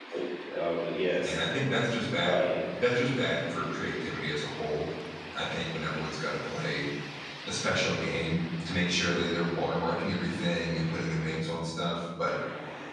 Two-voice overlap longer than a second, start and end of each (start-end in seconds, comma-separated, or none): none